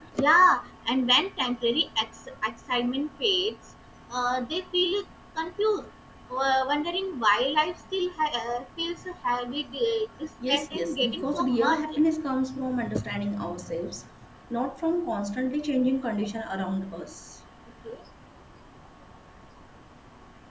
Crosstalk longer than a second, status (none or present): present